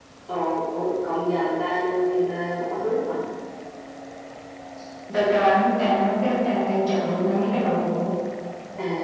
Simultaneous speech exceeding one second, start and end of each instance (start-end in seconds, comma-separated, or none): none